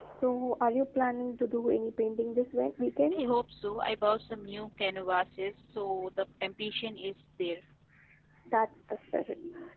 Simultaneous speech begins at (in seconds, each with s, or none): none